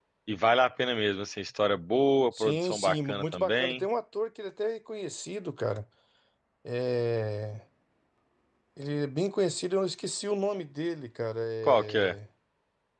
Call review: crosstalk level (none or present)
present